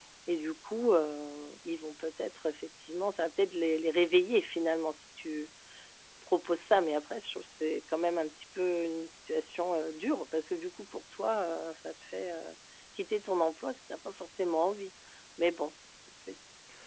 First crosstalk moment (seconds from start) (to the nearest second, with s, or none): none